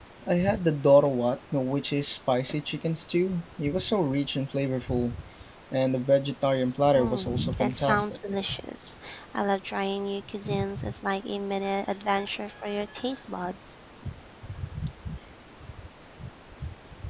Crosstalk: present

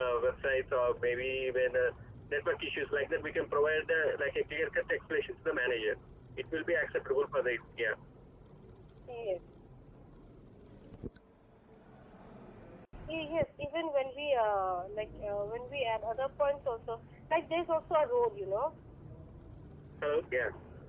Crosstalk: none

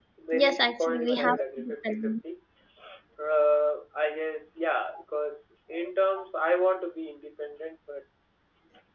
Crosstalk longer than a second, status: present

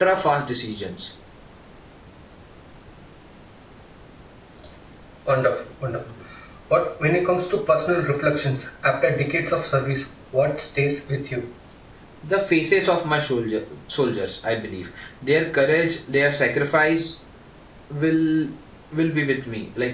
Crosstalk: none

